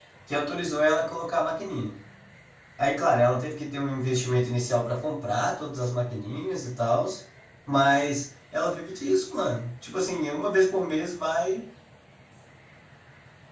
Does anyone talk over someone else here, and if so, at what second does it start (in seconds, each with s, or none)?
none